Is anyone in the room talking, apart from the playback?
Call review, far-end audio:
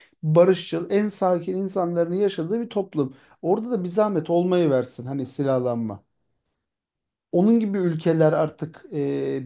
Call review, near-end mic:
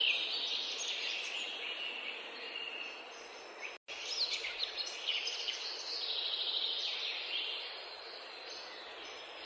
No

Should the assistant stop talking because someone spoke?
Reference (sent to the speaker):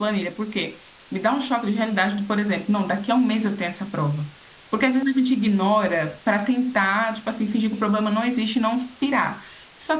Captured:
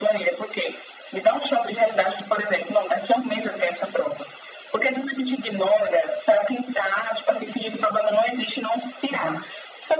Yes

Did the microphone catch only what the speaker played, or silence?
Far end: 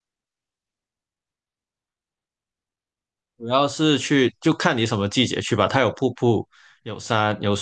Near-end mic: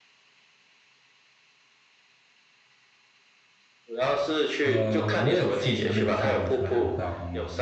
No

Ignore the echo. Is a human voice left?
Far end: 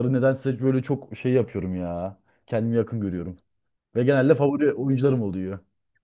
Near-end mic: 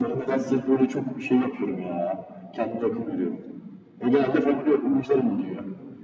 No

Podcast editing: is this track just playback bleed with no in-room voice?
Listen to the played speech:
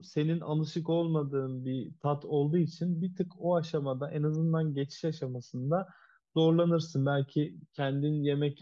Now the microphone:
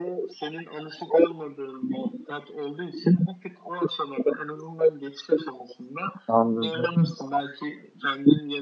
No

